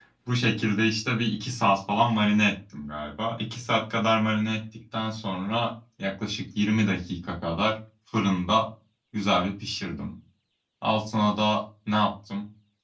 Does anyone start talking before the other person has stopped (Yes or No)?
No